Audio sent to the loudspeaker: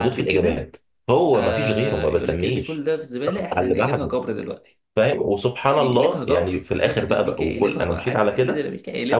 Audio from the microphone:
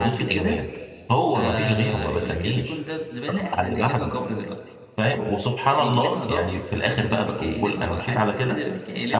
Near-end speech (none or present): none